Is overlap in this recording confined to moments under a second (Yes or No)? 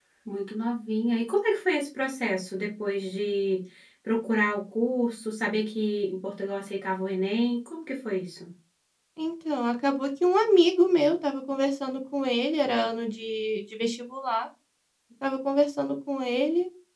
Yes